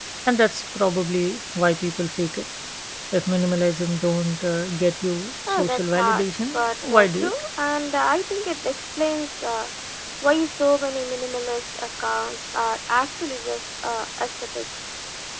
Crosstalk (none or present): present